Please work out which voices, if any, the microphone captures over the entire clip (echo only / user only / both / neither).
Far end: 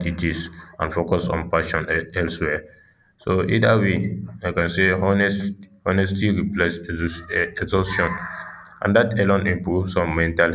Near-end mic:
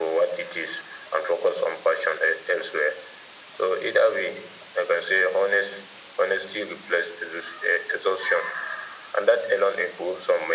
echo only